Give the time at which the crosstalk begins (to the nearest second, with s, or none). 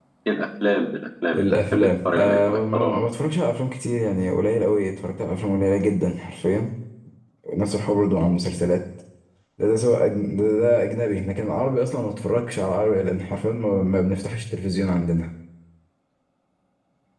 1 s